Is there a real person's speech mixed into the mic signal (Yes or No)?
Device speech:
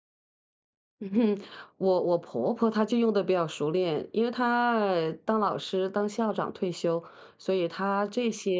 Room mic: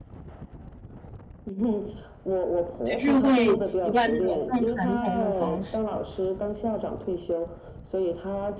Yes